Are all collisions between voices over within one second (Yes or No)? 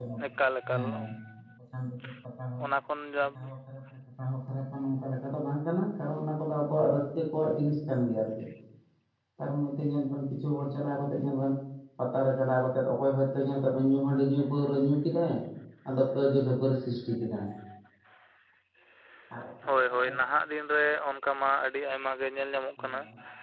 Yes